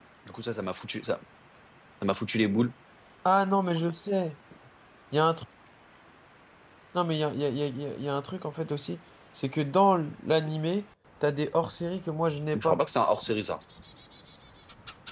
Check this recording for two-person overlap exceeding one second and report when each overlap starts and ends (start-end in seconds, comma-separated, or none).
none